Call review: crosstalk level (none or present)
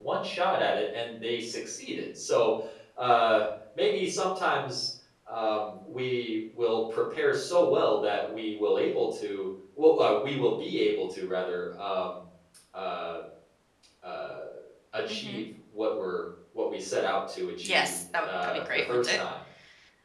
present